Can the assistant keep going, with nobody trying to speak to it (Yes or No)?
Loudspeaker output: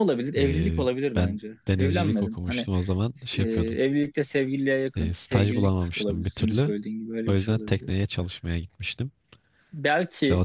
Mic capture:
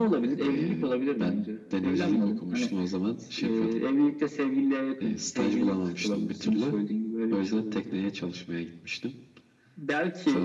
Yes